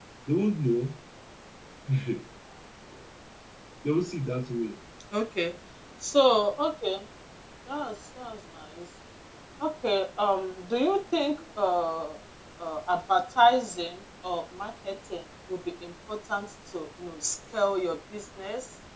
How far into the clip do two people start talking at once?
none

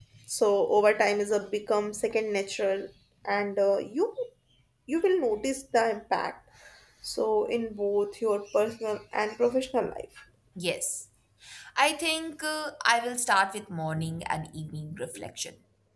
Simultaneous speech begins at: none

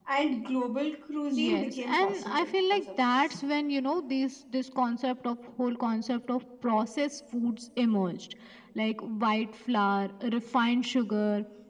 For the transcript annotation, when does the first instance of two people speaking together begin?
1.3 s

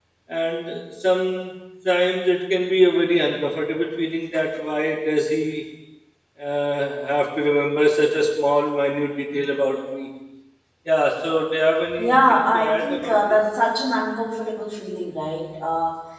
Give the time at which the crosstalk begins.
12.0 s

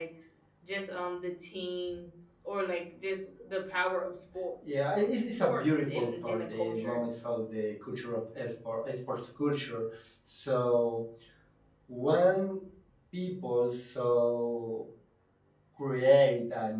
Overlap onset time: 4.9 s

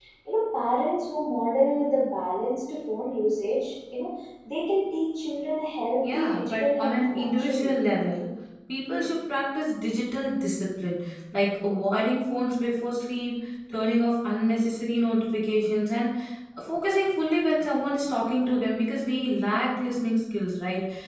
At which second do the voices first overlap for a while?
6.0 s

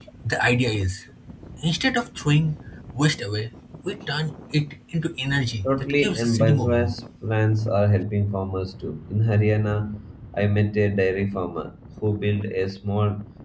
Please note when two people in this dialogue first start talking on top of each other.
5.6 s

